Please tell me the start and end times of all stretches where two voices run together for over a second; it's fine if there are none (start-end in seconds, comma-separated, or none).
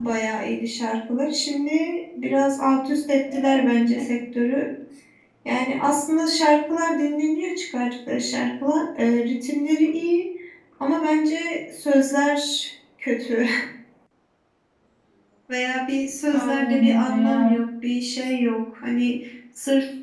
16.3-17.5